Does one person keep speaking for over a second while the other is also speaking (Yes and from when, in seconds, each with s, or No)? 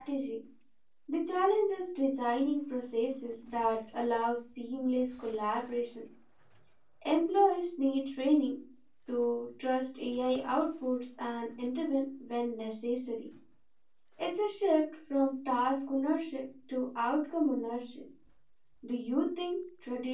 No